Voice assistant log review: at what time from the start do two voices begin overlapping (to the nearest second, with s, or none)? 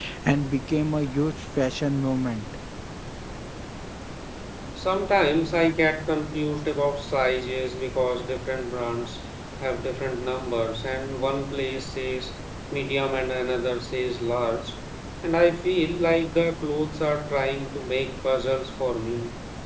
none